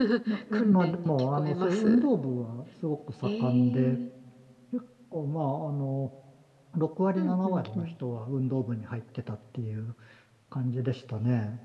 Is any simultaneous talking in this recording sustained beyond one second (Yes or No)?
Yes